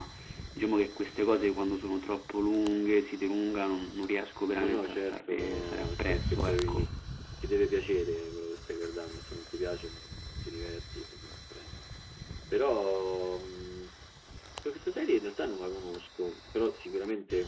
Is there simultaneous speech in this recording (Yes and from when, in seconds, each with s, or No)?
Yes, from 4.6 s